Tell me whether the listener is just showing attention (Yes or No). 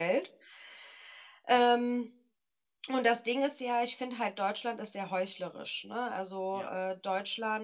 Yes